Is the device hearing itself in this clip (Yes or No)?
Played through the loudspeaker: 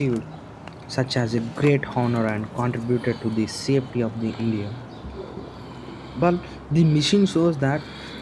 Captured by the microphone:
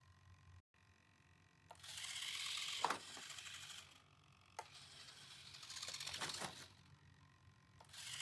No